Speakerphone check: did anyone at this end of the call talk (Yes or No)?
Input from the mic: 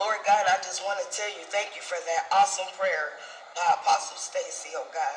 No